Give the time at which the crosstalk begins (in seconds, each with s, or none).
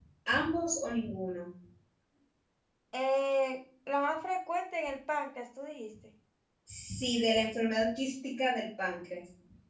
none